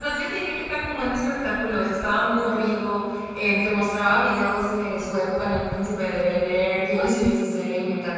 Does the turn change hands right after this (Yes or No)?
No